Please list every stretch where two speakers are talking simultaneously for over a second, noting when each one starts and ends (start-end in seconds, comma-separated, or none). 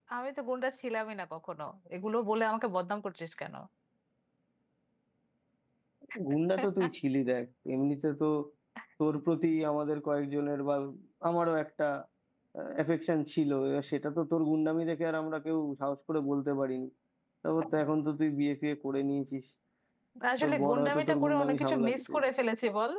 20.4-22.1